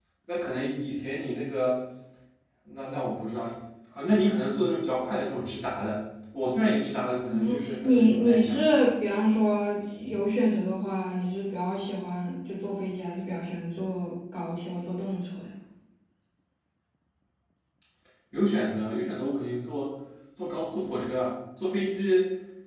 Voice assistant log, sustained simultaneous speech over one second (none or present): present